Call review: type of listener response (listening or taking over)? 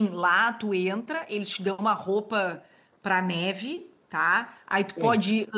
listening